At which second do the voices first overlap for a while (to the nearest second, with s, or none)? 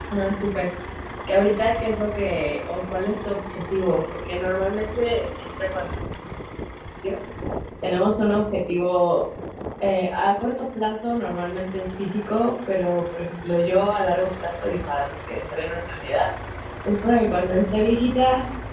none